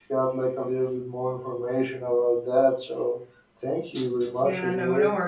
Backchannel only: No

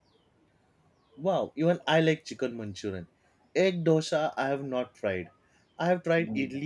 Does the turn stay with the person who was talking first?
Yes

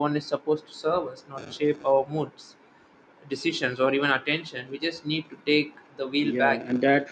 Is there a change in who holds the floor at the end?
Yes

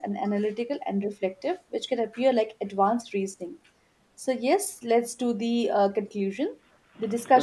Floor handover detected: No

